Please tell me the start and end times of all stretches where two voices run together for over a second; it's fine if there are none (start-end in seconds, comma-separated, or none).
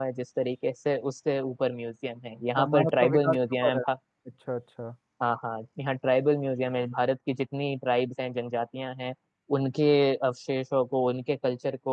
2.5-3.8